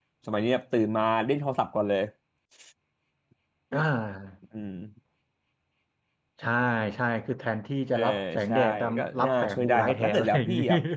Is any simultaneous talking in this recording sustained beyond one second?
Yes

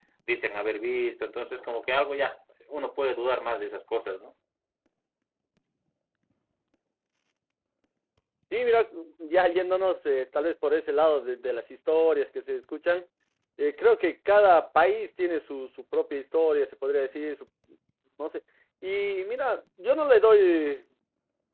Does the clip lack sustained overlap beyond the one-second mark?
Yes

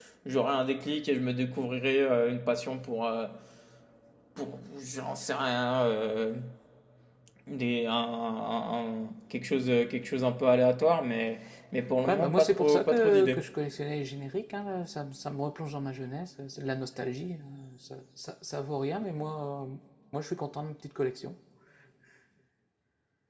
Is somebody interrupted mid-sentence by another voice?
Yes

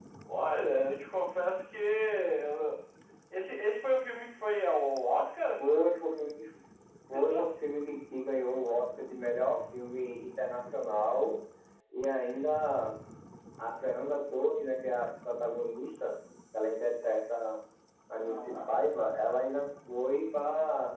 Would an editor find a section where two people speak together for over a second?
No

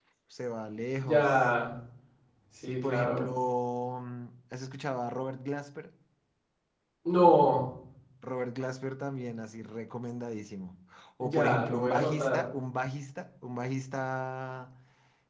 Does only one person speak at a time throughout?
No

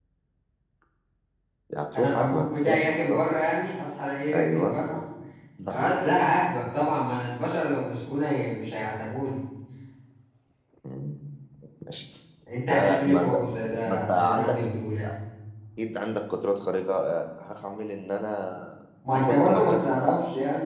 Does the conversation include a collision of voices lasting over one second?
Yes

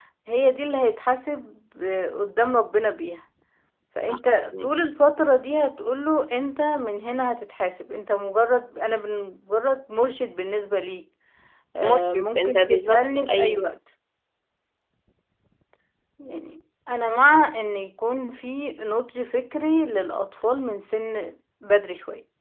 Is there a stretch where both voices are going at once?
Yes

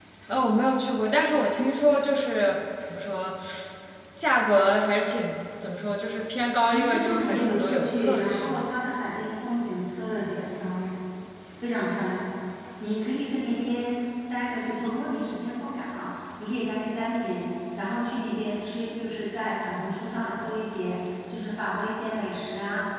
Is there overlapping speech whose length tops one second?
Yes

